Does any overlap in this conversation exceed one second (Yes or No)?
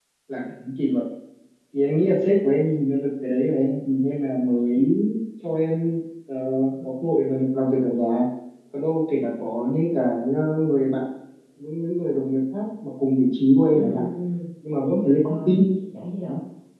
No